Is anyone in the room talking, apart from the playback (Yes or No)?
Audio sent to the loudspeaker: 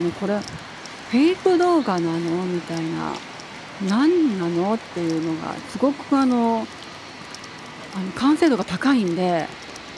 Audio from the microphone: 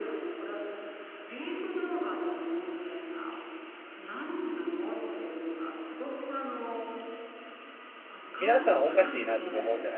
Yes